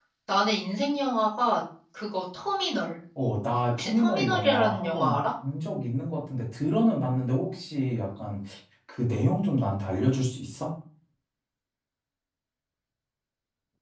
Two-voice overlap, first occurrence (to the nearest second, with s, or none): 4 s